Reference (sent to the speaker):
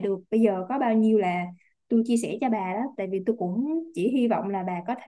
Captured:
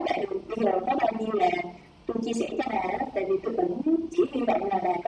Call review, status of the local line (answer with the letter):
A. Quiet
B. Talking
A